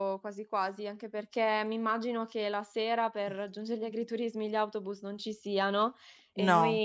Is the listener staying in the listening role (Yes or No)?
Yes